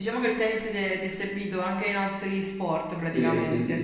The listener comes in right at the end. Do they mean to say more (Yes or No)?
Yes